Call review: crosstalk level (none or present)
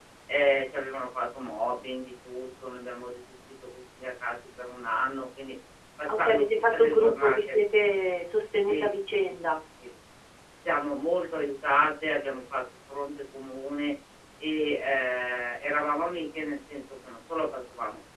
present